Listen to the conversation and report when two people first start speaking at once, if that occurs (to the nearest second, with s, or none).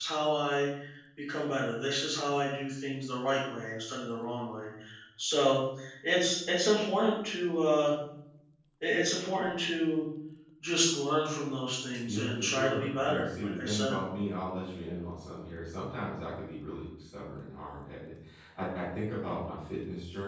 12 s